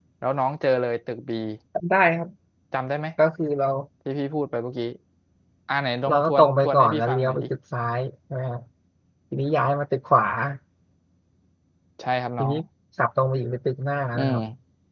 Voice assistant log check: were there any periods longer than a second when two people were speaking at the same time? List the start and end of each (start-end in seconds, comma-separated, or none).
6.1-7.5